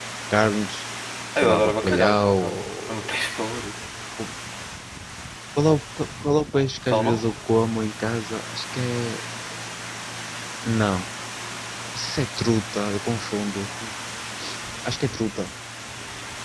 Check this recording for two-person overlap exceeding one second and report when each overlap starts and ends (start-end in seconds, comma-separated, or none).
1.4-2.9